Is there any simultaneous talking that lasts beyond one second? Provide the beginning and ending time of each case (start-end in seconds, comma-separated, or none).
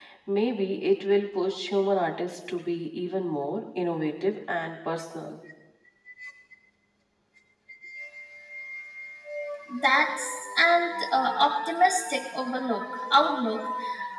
none